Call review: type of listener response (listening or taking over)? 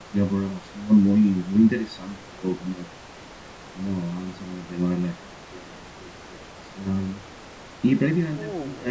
listening